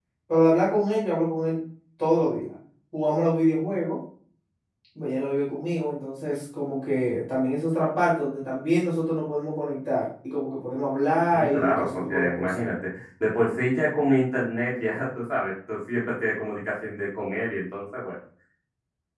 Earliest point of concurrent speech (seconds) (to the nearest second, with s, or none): 11 s